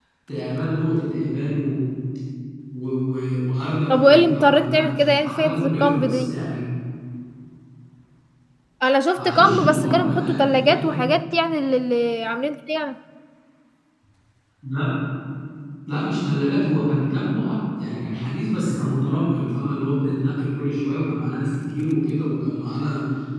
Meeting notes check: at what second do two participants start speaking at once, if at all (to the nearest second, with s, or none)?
4 s